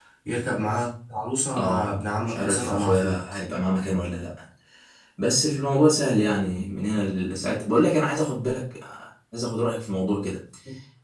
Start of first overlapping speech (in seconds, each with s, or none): 1.5 s